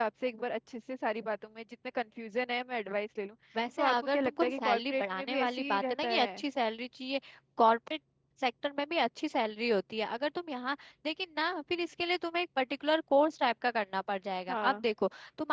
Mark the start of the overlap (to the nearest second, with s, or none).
4 s